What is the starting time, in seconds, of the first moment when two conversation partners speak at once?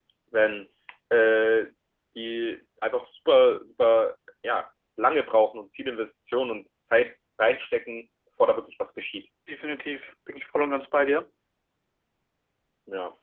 none

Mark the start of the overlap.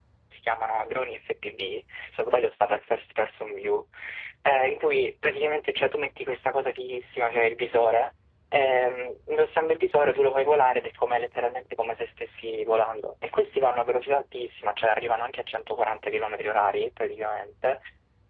none

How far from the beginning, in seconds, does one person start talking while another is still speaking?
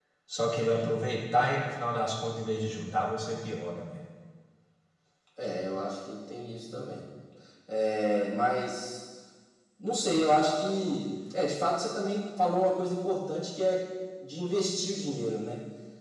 none

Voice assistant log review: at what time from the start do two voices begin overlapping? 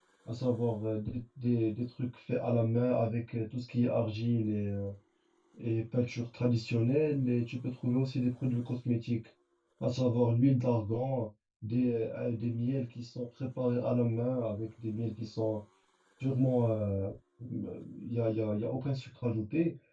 none

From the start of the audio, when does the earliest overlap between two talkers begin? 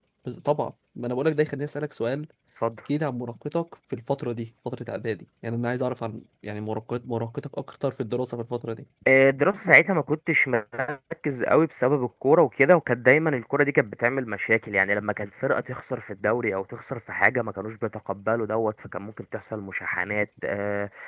none

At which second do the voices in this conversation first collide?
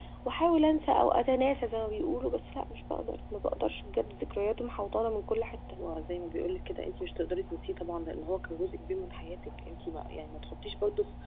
none

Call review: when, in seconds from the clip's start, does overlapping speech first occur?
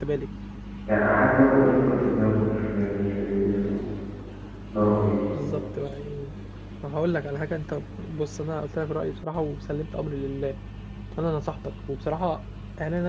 none

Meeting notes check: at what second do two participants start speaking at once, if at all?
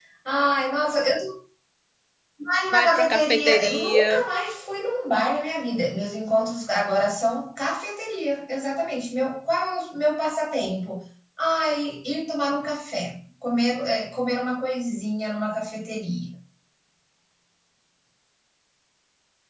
2.7 s

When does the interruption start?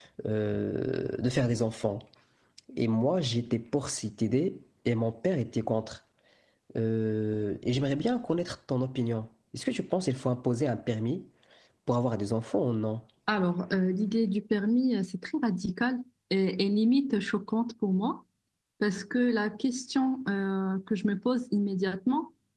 none

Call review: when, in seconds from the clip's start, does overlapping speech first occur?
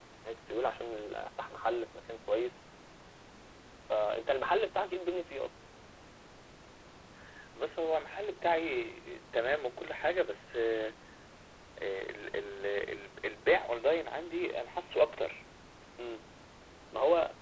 none

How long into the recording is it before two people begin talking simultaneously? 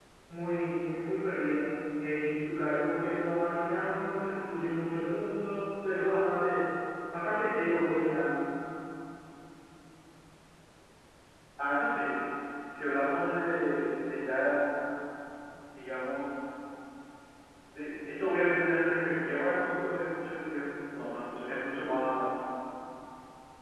none

